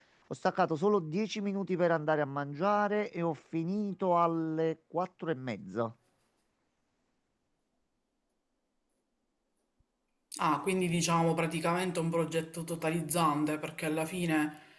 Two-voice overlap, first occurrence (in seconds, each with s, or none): none